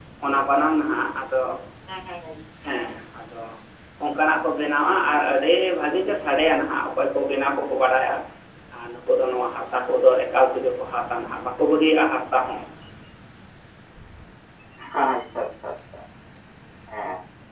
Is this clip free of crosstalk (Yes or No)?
Yes